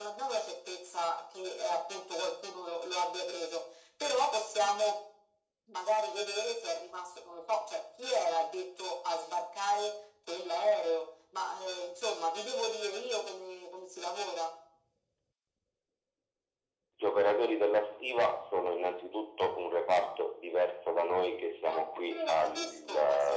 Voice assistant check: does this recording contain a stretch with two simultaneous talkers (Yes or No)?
Yes